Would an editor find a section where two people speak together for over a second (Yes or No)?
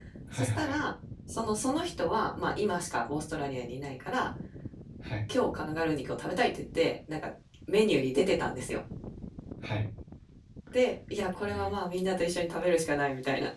No